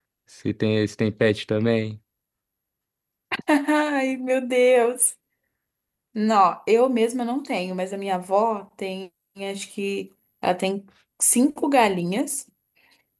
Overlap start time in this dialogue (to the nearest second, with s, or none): none